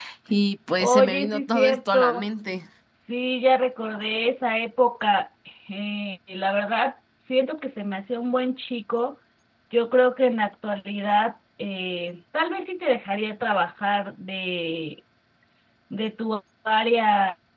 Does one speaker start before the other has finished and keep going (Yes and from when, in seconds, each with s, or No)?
Yes, from 0.8 s